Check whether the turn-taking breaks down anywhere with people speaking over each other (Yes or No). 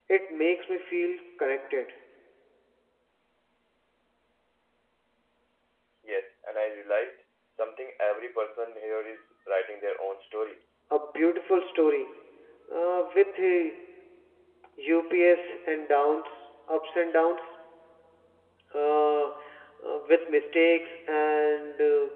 No